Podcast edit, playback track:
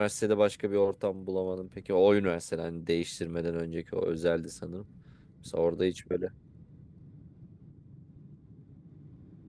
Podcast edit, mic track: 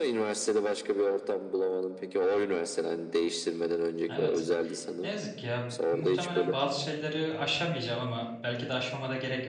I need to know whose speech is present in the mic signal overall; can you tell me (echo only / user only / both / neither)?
both